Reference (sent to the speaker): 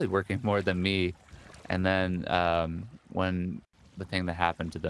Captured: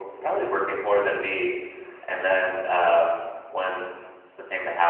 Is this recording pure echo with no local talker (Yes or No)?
Yes